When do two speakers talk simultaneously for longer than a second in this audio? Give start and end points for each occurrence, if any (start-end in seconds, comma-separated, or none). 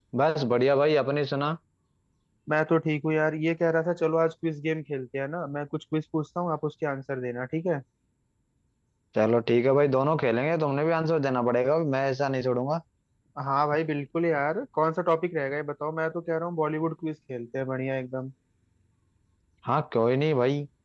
none